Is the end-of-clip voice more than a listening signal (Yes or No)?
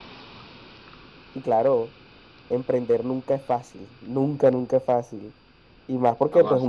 No